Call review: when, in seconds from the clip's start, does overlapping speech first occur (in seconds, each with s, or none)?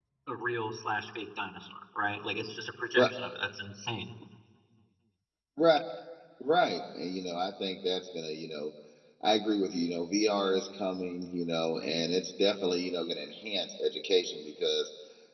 none